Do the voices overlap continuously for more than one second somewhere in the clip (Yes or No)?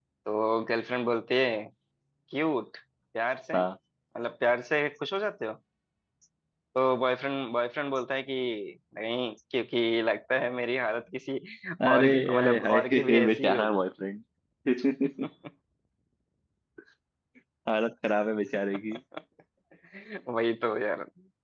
Yes